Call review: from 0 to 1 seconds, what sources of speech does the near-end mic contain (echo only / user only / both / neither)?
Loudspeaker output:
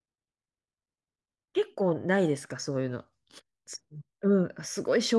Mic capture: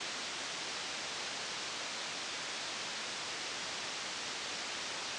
neither